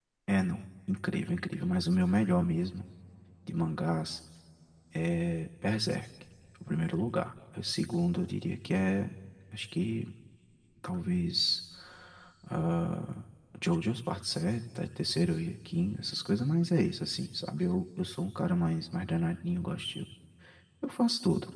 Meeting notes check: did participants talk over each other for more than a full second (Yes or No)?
No